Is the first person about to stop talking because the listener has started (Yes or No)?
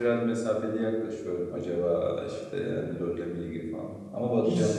Yes